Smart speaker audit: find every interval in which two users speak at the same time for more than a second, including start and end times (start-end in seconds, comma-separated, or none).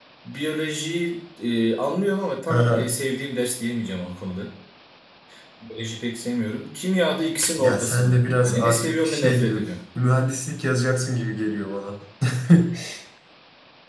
7.6-9.6